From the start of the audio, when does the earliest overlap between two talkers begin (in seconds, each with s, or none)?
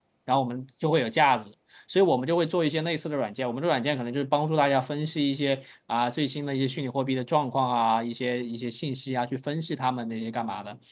none